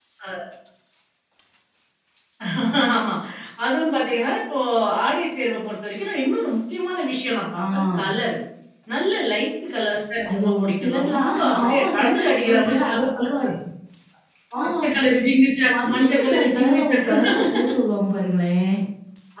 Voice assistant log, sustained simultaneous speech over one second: present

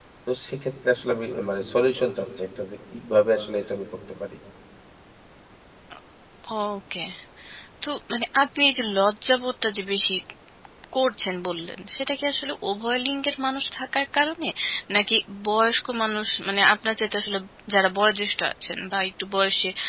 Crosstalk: none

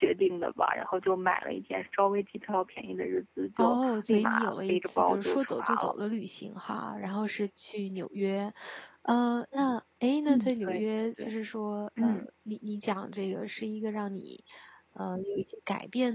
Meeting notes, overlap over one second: present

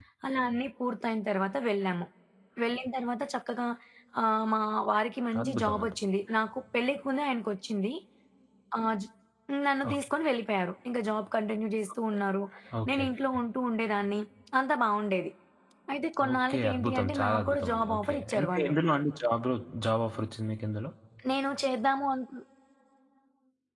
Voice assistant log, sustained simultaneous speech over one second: present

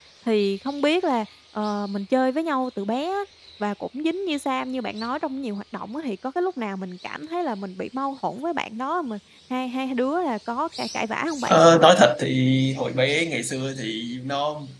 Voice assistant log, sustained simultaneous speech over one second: none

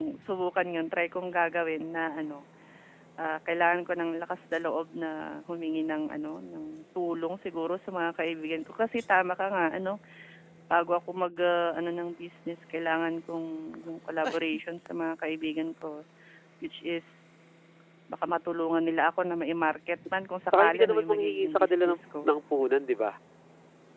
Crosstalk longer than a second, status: present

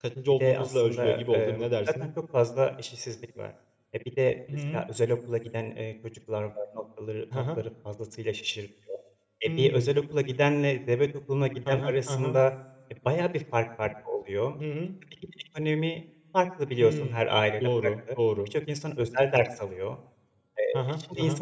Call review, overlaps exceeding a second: present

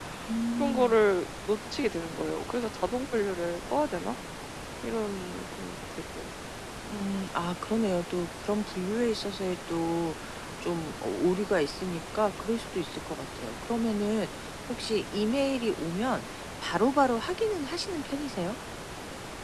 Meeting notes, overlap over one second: none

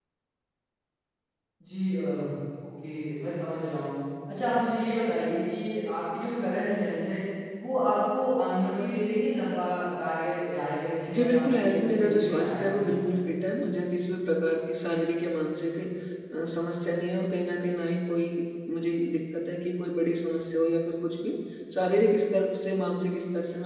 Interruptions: present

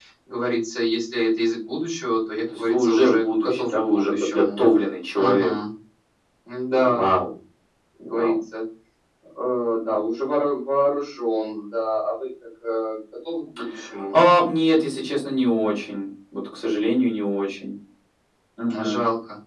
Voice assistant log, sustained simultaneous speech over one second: present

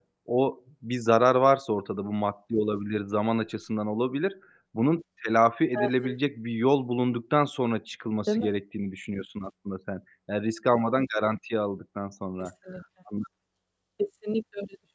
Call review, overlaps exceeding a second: none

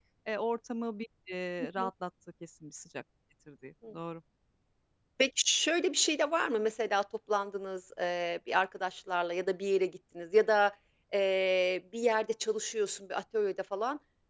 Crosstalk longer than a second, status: none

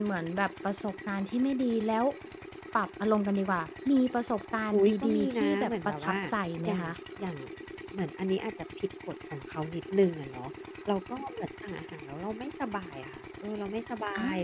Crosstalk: present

